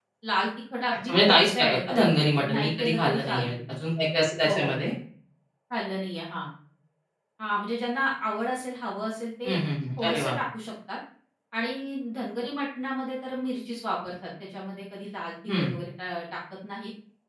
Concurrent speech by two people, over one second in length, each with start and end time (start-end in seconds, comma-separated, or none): 1.0-3.4